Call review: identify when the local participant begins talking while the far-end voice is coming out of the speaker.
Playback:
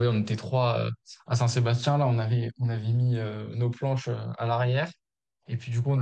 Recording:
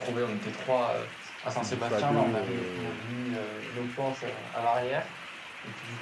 1.5 s

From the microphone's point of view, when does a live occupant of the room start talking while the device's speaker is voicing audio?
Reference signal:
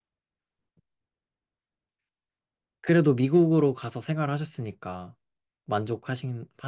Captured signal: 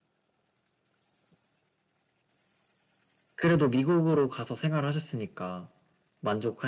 none

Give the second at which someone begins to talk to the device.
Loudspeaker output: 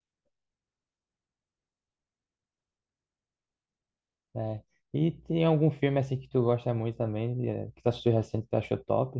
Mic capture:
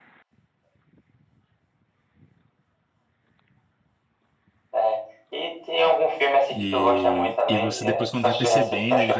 6.5 s

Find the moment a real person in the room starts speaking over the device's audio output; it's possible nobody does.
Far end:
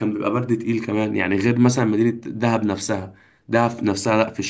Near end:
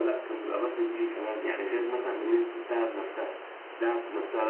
none

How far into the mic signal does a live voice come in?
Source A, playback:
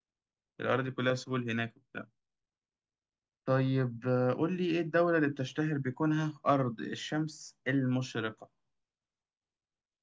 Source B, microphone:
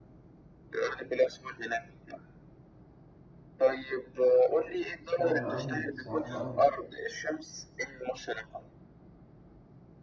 5.1 s

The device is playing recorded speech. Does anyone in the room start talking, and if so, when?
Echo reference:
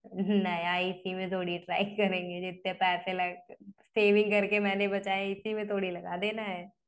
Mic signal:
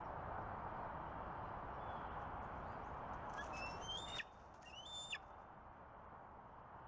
none

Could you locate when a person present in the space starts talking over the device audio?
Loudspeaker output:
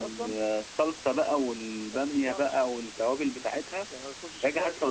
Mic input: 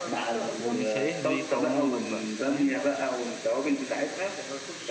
0.6 s

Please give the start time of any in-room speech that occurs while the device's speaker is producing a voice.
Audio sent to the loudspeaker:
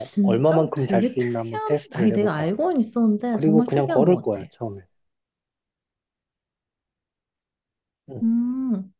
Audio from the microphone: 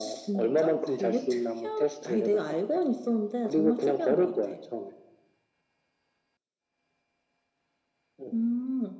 none

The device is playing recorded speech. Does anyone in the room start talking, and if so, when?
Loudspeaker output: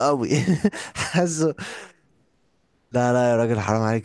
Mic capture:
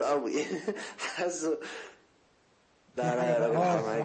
3.0 s

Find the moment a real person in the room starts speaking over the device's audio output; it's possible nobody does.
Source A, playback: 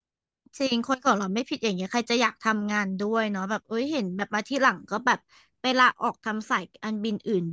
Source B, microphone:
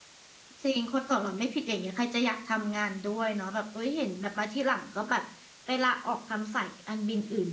none

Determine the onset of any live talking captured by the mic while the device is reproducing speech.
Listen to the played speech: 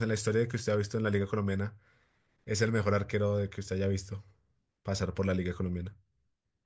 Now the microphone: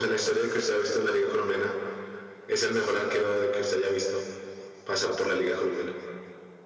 none

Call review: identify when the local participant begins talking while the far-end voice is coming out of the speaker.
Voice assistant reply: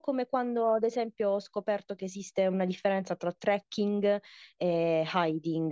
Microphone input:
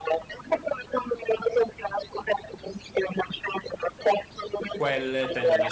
4.7 s

